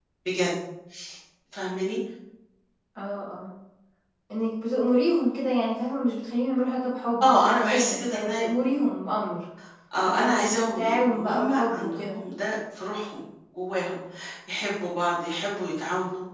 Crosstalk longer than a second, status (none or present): present